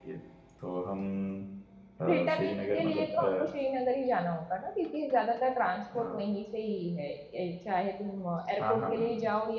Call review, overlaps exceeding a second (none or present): present